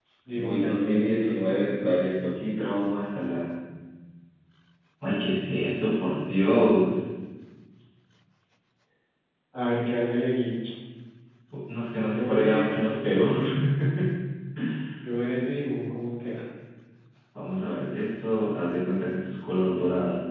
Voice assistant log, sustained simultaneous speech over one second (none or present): present